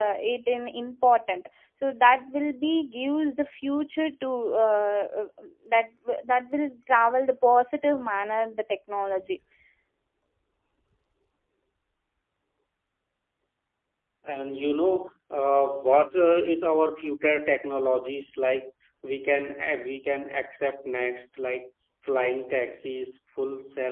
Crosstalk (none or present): none